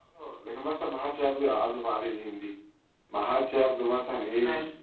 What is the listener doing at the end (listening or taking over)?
listening